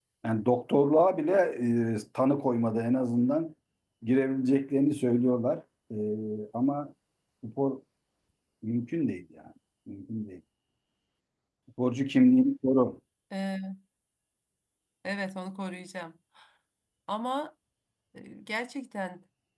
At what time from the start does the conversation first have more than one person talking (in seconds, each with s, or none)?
none